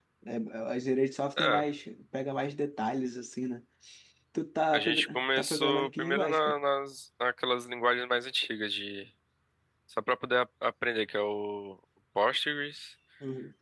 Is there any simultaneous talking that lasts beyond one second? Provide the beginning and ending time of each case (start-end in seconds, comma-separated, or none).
4.7-6.5